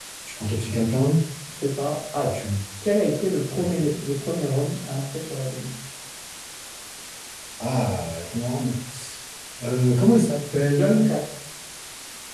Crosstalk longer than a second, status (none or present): none